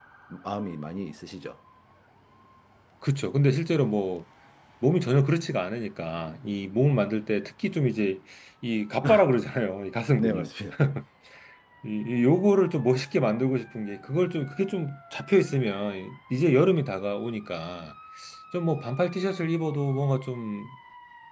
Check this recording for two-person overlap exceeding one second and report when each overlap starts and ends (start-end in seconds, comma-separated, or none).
none